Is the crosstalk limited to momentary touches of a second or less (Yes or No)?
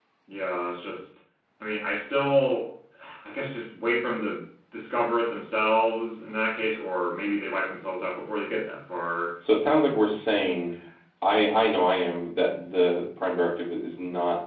Yes